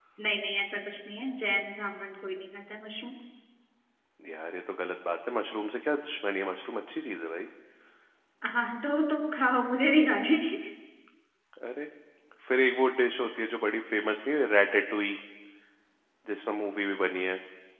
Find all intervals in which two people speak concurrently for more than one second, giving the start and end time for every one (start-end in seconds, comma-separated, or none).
none